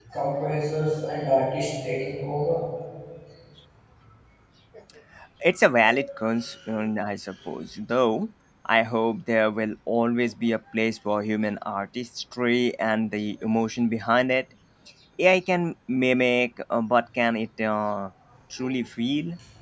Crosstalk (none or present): none